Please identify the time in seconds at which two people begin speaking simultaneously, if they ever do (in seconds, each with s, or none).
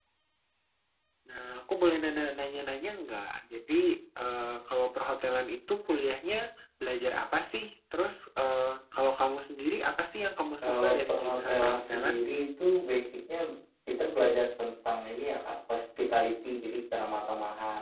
10.6 s